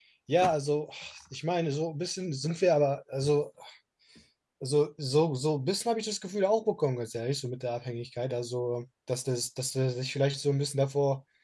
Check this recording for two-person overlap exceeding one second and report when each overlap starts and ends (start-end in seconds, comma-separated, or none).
none